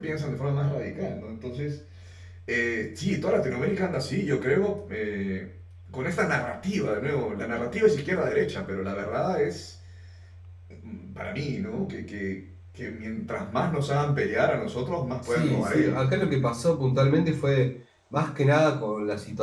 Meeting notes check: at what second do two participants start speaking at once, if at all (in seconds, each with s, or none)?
15.2 s